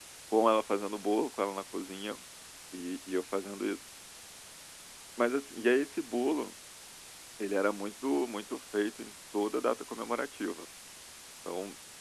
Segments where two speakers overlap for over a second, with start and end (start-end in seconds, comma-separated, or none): none